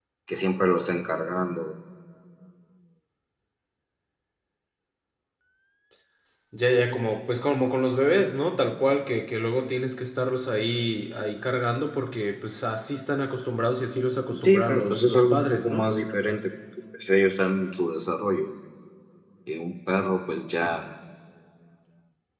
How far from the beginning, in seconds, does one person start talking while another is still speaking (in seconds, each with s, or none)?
14.3 s